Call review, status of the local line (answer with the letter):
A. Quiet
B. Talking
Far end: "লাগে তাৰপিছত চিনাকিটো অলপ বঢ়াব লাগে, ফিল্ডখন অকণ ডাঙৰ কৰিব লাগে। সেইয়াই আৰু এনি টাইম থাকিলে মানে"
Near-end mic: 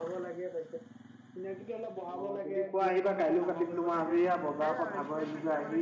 B